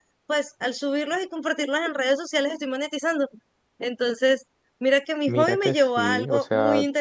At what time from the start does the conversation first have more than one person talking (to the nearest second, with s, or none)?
5 s